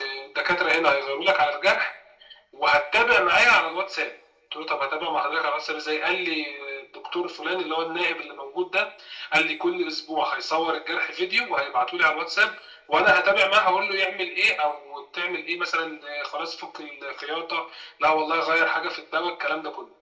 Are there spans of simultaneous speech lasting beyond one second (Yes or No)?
No